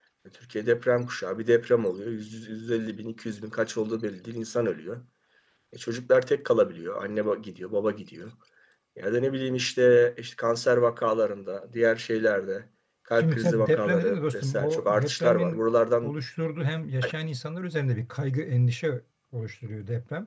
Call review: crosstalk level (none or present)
present